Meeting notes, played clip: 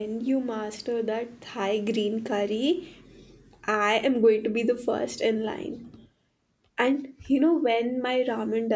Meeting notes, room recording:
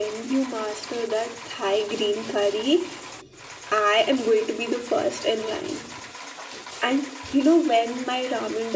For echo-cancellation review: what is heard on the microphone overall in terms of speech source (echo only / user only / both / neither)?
echo only